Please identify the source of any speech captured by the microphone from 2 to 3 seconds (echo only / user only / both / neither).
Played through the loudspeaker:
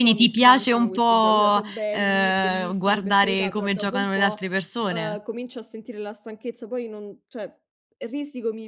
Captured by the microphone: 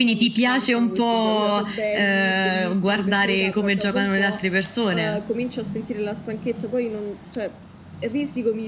echo only